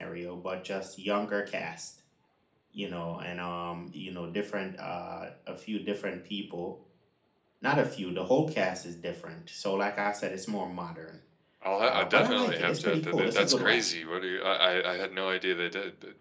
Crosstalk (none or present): present